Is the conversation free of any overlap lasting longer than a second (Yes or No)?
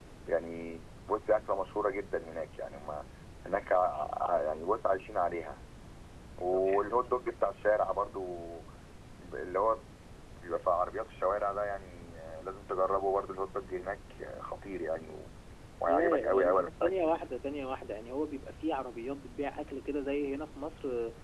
No